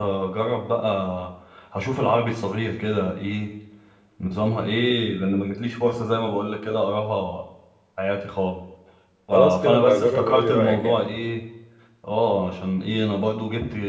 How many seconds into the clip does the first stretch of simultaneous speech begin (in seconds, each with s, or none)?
9.3 s